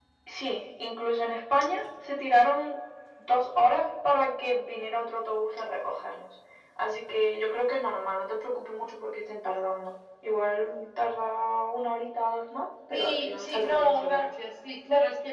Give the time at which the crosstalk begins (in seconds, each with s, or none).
12.9 s